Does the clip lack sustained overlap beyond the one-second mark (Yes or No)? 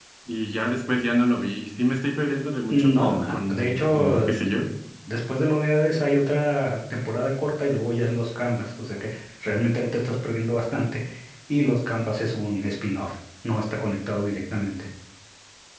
No